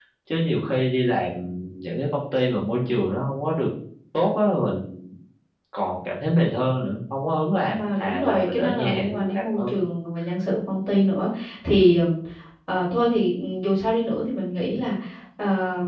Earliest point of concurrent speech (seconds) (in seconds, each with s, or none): 7.7 s